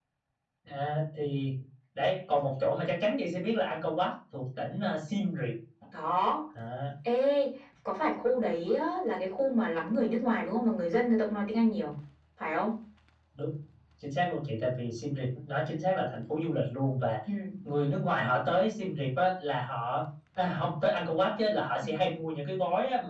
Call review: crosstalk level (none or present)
none